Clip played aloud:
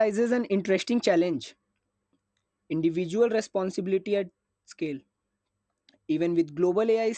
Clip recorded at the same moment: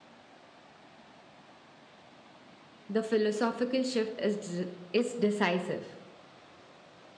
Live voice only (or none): the philosophical shift is, dec- is decisive.